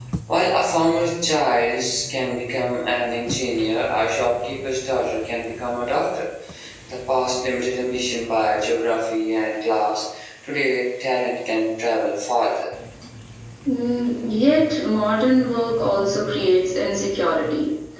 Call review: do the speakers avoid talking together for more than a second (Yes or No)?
Yes